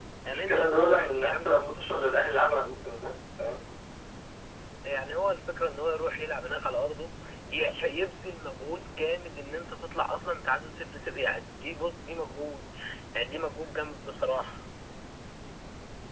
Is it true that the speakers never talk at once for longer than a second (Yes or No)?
No